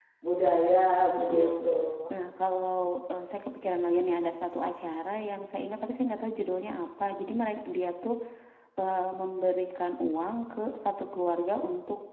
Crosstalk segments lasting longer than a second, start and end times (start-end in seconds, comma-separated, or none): none